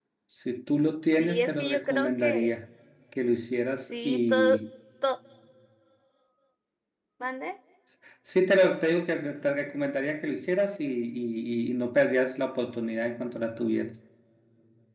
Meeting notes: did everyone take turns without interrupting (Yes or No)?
No